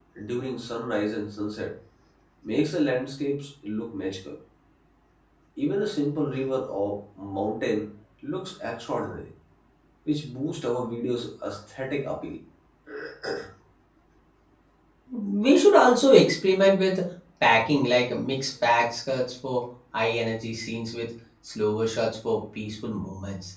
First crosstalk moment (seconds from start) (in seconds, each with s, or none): none